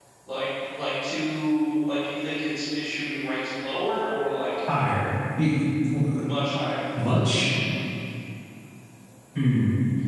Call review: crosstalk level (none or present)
none